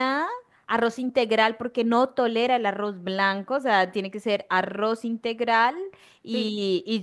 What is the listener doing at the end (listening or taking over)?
listening